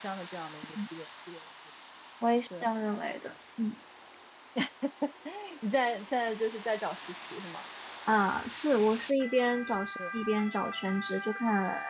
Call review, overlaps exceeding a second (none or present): none